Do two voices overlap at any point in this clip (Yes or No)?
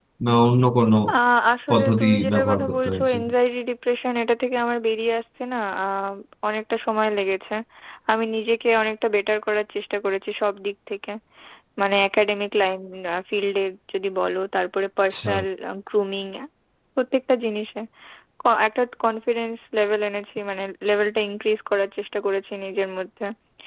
Yes